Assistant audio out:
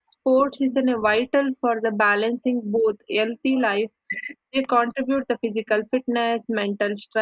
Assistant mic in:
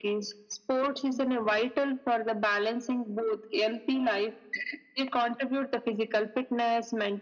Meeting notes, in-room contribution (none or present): none